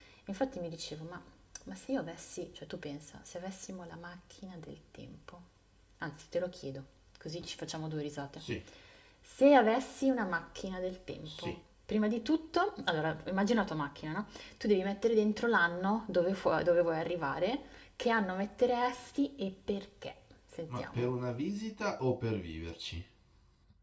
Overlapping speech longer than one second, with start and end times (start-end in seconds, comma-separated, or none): none